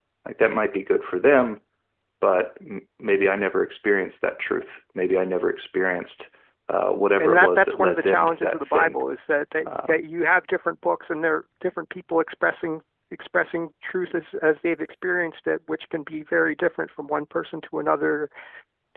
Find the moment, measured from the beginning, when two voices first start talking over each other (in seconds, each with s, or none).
7.2 s